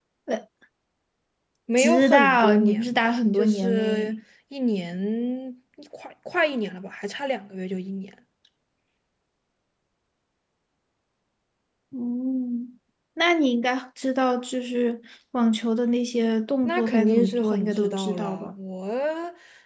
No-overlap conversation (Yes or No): No